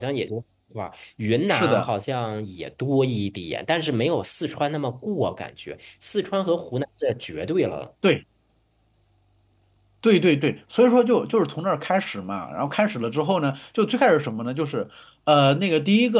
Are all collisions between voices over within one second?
Yes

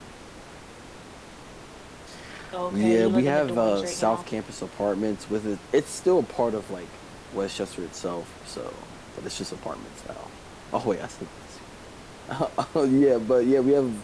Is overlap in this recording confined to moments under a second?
No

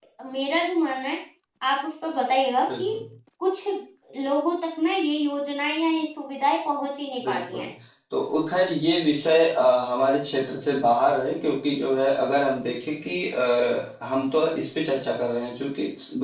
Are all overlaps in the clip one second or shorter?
Yes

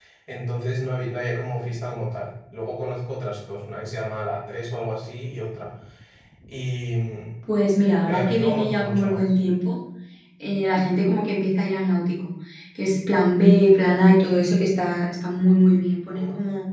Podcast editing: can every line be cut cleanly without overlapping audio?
No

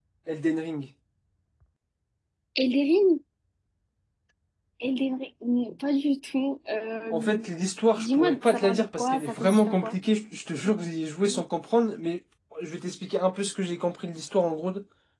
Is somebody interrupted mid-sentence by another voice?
Yes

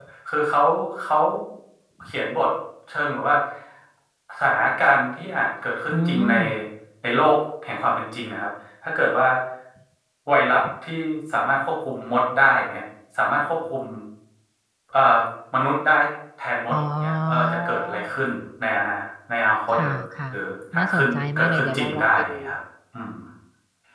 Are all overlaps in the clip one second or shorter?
No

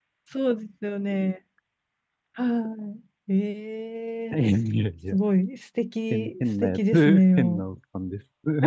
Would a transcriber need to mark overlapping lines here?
Yes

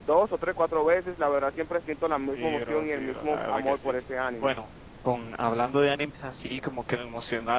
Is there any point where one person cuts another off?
Yes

